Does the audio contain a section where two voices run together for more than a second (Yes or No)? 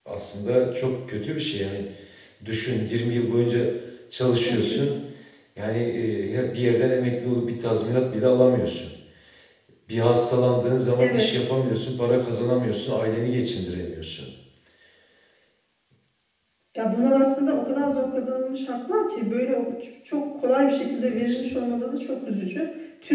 No